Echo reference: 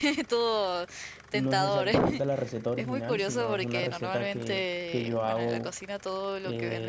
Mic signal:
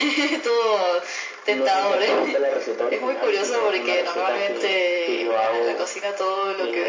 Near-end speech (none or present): none